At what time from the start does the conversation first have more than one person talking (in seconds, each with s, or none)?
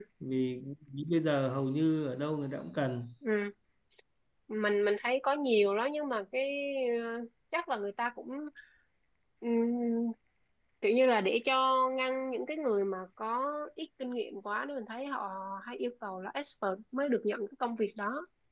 none